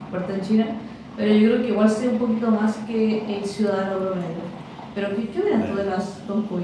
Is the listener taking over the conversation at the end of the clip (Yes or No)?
No